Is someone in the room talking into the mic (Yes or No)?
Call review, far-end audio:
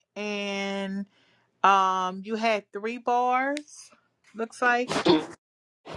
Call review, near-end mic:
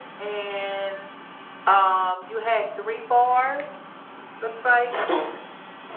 No